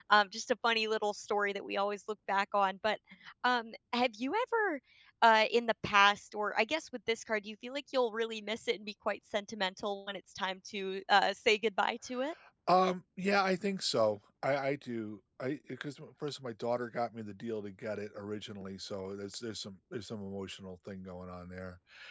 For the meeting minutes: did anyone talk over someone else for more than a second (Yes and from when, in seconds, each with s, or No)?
No